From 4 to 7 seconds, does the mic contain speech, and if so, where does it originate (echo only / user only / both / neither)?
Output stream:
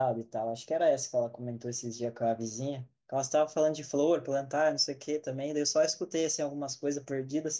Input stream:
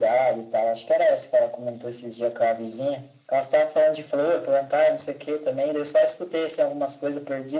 echo only